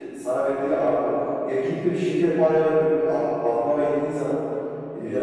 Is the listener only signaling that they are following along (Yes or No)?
Yes